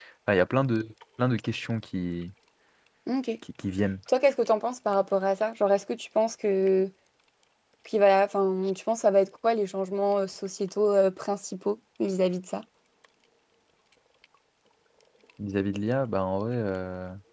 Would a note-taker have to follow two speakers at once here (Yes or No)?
No